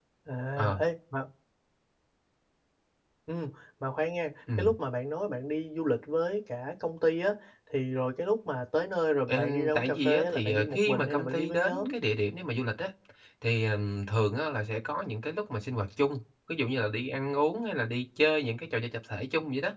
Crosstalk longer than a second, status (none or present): present